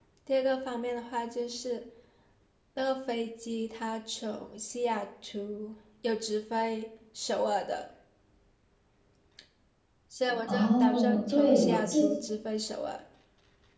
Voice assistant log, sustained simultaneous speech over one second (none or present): present